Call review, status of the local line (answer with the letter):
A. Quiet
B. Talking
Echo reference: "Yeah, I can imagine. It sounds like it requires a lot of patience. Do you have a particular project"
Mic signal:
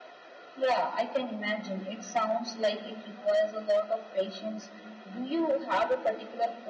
A